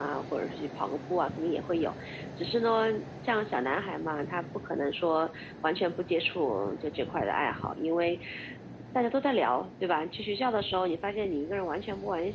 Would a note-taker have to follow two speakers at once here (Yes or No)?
No